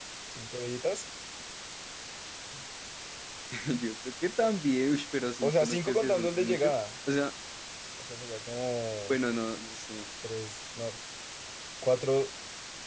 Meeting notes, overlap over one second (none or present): present